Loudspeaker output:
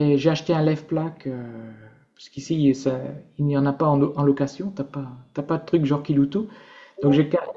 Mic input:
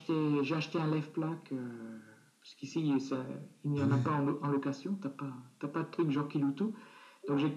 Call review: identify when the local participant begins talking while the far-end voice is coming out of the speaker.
3.8 s

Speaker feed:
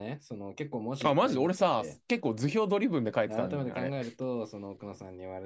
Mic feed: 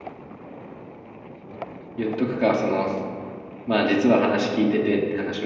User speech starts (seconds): 1.9 s

